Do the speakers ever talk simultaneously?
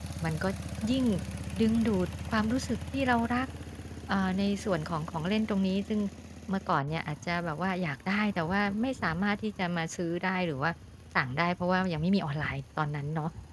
No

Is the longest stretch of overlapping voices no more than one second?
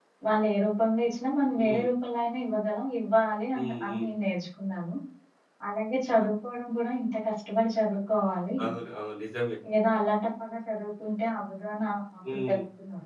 Yes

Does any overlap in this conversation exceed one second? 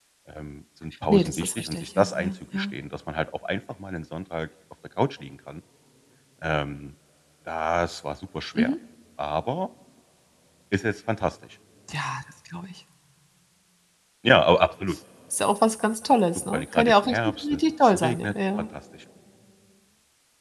Yes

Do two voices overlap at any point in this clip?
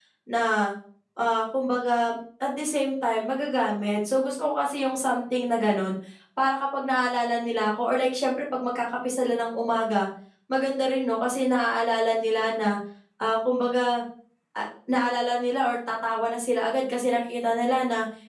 No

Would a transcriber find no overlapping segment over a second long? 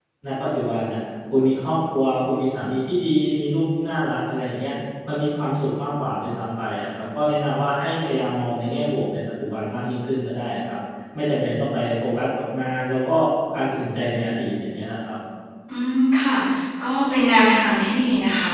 Yes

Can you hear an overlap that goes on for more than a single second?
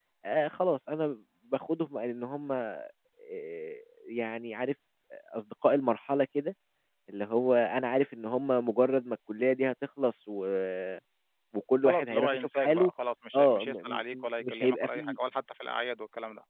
Yes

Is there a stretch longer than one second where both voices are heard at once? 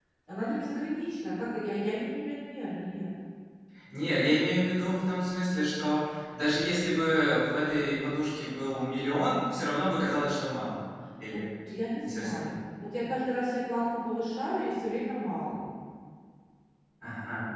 No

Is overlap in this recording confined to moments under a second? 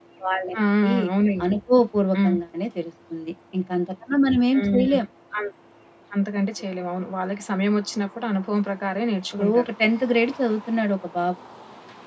Yes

